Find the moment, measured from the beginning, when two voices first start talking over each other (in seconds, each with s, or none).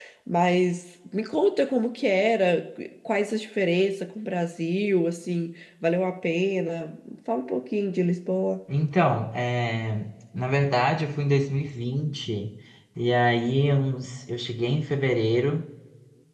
none